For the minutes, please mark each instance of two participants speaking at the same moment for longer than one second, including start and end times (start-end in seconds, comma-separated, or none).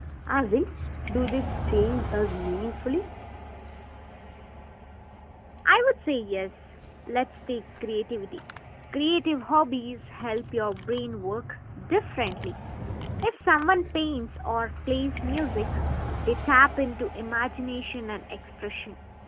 none